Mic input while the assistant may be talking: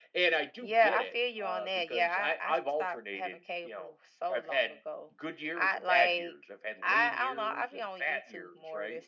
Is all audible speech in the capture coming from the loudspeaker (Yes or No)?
Yes